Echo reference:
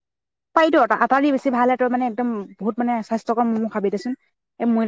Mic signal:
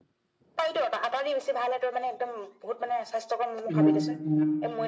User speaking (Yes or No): Yes